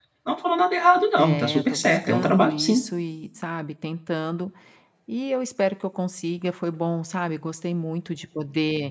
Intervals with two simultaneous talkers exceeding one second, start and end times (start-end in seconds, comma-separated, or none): 1.2-2.8